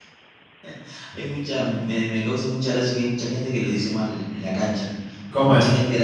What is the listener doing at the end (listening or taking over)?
listening